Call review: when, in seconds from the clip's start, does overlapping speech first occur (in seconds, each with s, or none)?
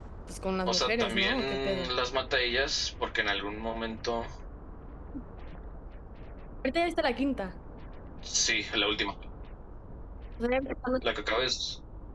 0.7 s